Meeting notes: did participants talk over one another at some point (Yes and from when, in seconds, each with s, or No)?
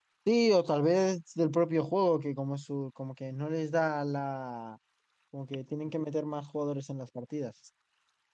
No